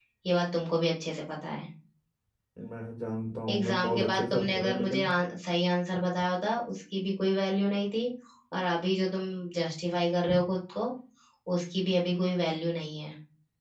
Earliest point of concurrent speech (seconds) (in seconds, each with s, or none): 3.5 s